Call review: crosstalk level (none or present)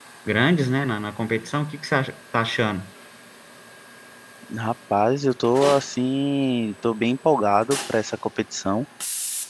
none